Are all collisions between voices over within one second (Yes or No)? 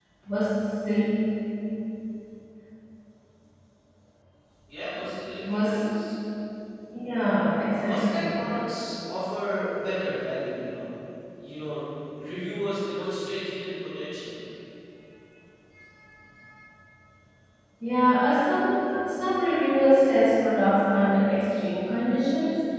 Yes